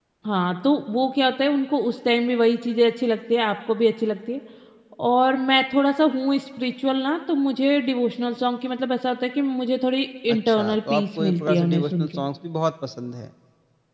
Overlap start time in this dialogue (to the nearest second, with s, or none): 10 s